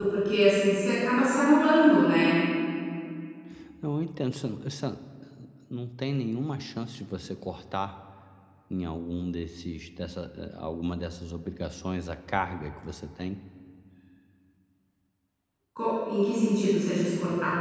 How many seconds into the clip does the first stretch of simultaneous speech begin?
none

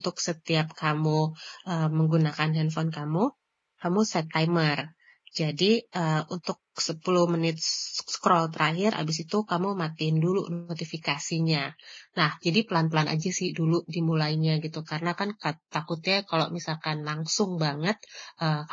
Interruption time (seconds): none

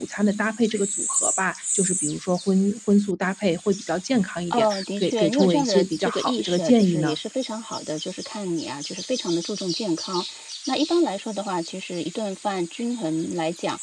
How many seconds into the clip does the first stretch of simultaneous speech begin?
4.5 s

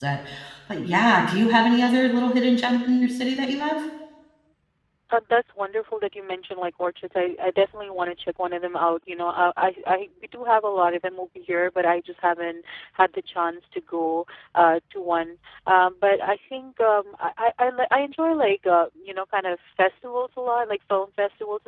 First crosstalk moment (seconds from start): none

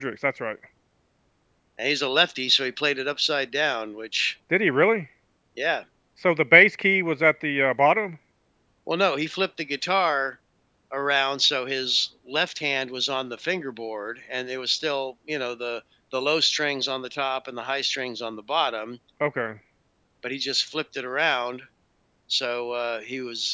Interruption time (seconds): none

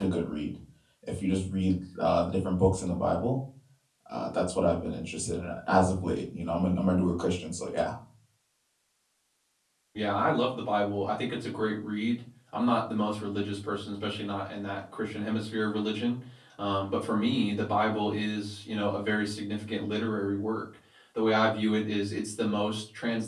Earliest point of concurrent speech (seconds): none

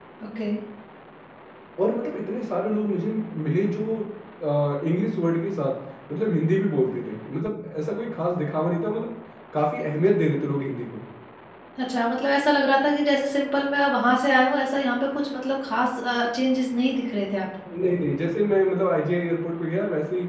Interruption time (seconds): none

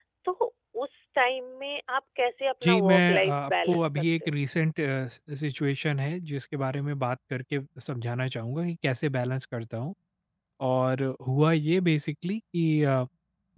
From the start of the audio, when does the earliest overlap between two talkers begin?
2.6 s

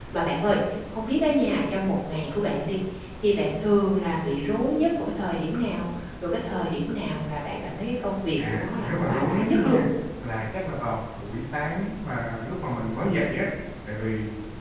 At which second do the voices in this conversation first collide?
8.4 s

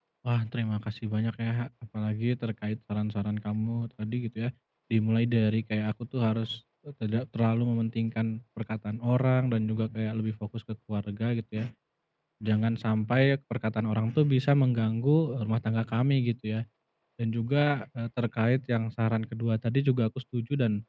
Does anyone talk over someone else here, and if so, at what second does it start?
none

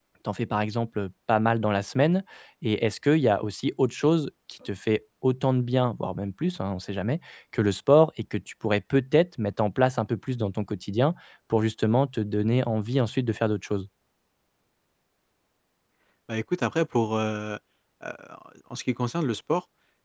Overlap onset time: none

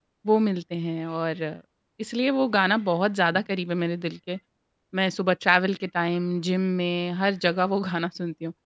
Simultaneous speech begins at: none

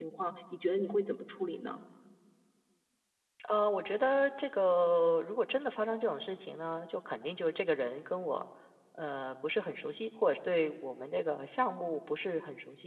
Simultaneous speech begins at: none

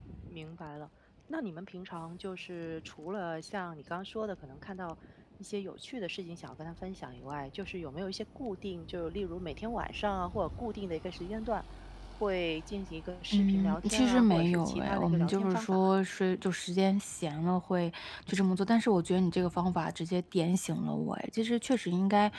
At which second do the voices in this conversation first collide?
13.3 s

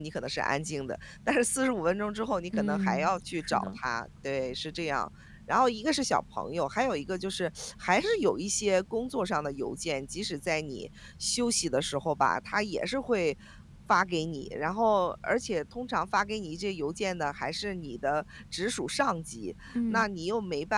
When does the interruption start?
2.5 s

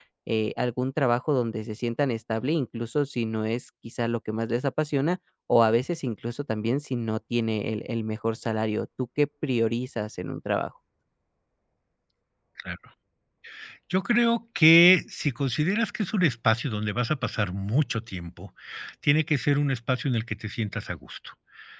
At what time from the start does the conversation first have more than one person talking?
none

